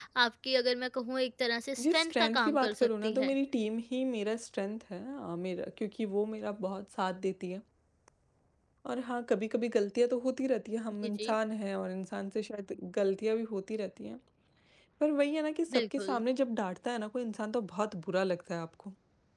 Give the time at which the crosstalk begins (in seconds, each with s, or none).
1.8 s